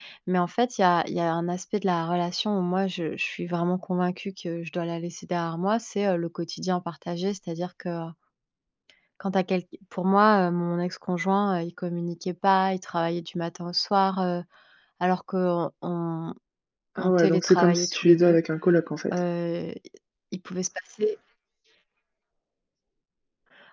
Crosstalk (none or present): present